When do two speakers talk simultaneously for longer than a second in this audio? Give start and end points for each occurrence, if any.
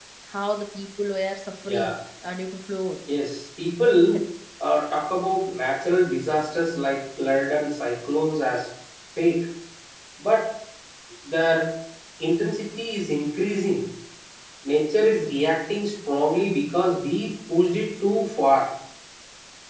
none

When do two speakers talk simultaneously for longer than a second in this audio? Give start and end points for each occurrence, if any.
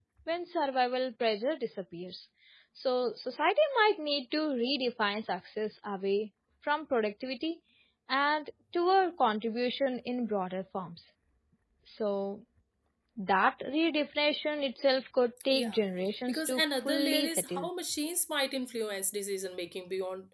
16.3-17.7

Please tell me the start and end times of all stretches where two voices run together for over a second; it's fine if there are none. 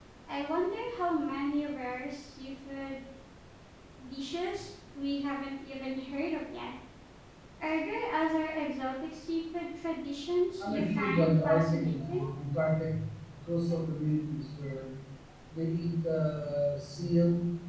10.6-12.2

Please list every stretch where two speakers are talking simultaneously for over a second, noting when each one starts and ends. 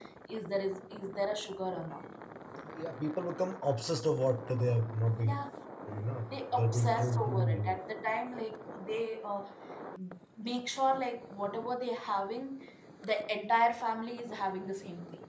6.5-7.8

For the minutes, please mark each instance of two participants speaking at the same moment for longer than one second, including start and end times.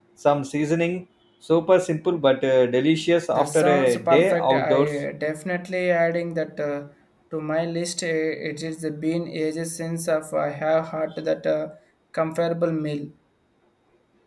3.3-4.9

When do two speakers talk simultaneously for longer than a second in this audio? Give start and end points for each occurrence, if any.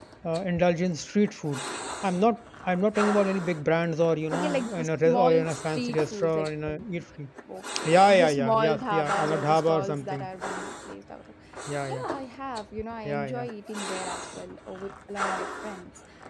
4.3-7.0, 7.8-10.3

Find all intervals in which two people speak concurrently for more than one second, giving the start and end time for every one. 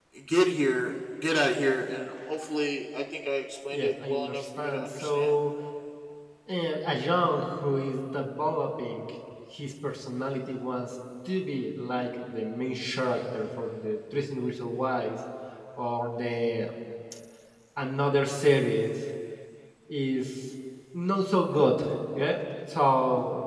3.7-5.3

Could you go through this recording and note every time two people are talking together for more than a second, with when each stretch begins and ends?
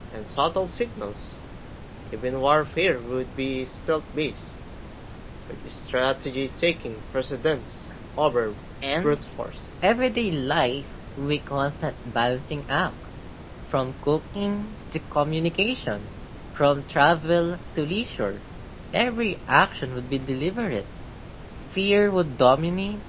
none

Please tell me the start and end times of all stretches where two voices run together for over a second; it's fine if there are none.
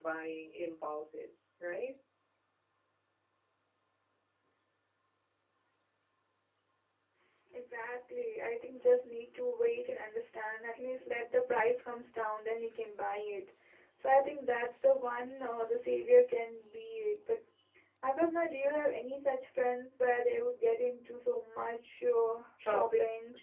none

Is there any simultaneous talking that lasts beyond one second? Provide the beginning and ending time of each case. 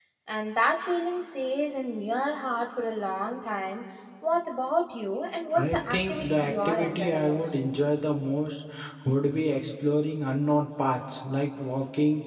5.6-7.5

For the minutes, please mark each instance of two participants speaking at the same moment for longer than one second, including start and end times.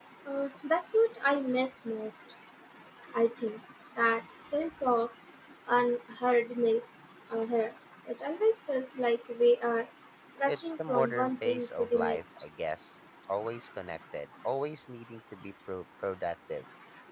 10.5-12.2

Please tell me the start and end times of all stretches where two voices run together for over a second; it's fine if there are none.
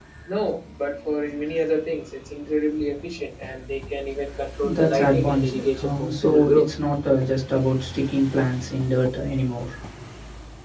4.6-6.7

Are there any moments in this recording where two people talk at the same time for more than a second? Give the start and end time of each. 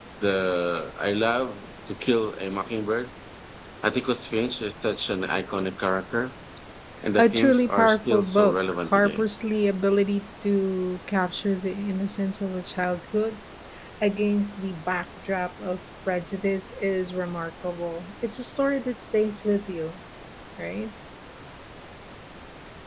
7.2-9.2

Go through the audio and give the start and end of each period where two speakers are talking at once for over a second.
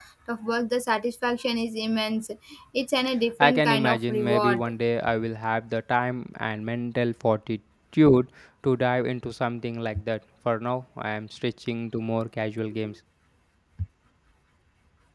3.4-4.7

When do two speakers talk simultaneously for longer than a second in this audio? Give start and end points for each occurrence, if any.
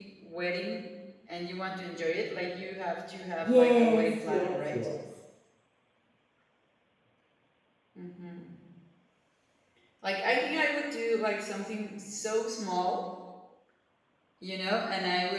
3.4-4.8

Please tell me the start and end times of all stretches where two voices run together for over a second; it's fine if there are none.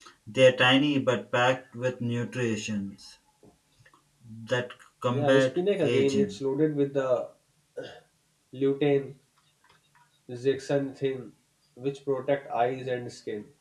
5.1-6.4

